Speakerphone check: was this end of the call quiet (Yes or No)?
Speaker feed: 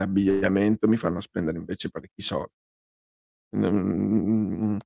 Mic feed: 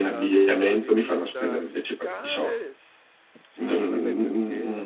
No